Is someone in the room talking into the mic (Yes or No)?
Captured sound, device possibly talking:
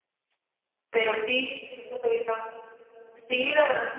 Yes